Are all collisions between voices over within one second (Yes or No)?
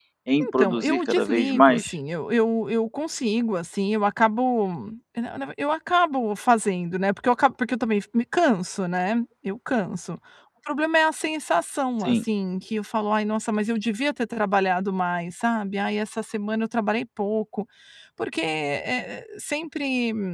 No